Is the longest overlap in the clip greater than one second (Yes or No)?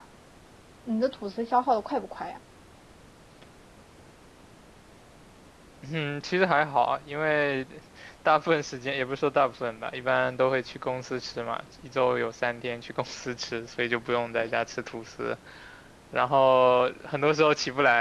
No